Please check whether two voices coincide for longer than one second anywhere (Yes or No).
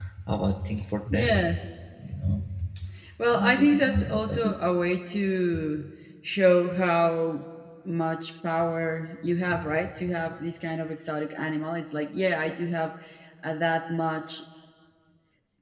Yes